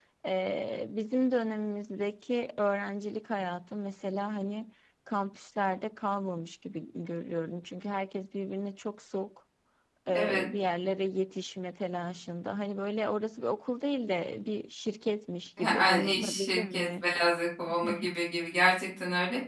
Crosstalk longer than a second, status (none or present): present